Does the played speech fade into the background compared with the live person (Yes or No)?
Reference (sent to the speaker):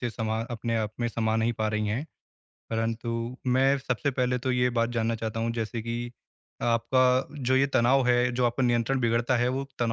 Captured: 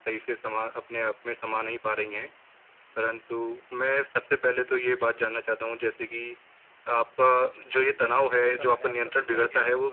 No